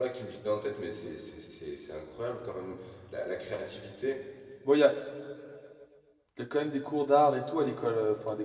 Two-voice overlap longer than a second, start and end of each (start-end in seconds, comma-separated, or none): none